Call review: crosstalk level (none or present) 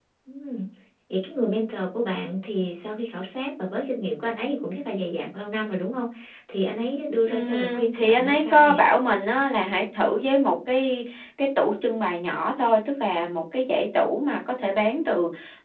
present